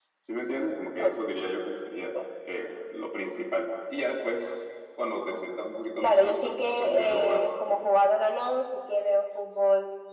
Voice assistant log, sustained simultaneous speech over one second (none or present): present